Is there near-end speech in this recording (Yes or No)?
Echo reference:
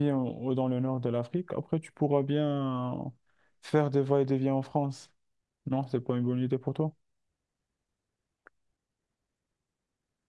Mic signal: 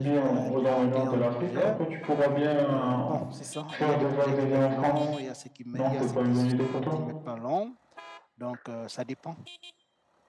Yes